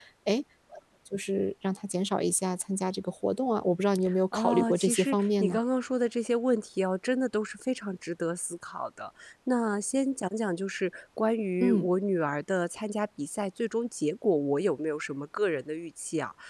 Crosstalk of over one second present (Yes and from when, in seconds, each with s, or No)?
Yes, from 4.3 s